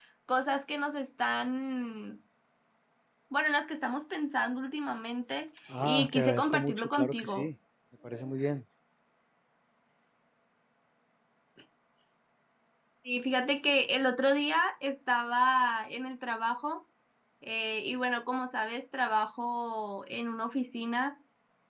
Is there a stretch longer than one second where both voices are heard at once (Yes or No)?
Yes